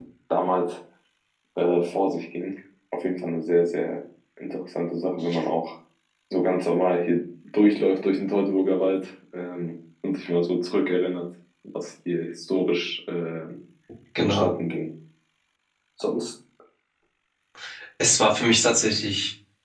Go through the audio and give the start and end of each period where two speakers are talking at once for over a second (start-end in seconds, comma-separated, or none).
none